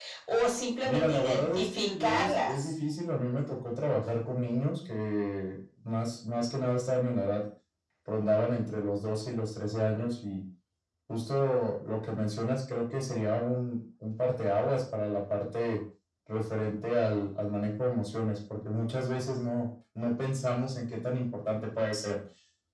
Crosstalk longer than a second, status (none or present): present